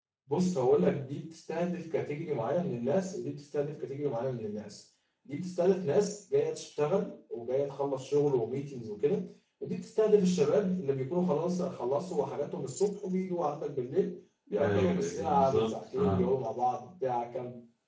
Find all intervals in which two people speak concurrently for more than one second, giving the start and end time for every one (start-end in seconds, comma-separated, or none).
14.6-16.3